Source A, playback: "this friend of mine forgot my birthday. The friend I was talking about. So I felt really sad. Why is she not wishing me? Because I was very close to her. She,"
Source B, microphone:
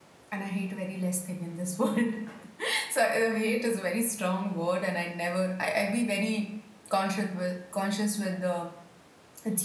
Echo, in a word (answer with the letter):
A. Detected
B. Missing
B